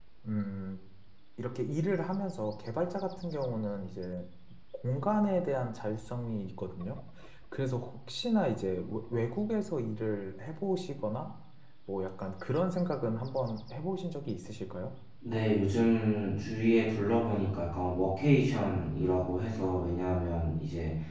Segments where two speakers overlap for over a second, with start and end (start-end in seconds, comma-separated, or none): none